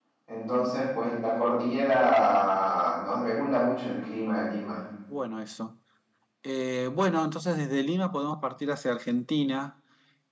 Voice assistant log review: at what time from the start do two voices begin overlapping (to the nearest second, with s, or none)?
none